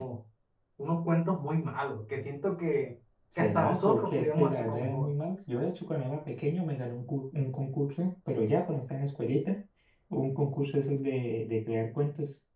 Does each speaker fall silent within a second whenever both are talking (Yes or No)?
No